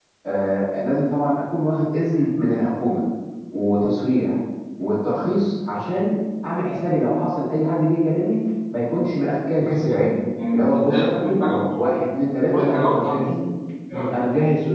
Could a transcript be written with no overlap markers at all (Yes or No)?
No